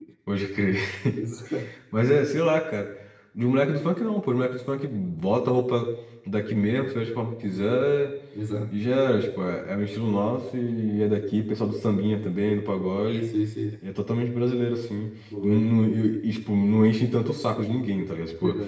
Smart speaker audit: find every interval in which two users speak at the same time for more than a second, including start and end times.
none

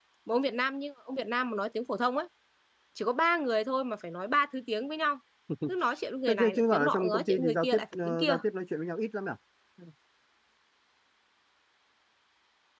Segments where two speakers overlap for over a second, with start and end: 6.3-8.4

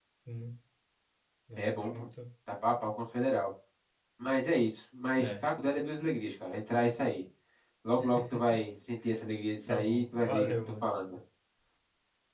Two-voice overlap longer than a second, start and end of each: 9.7-10.9

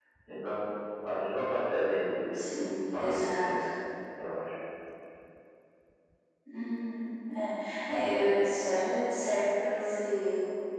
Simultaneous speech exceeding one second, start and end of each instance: 2.3-3.6

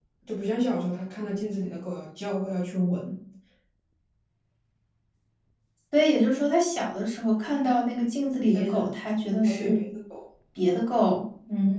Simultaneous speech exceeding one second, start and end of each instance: none

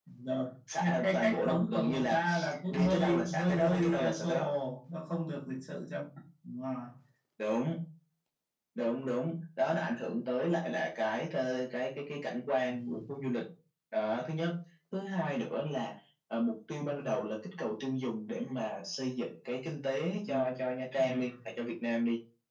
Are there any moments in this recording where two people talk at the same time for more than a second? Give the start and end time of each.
0.8-2.2, 2.7-4.5

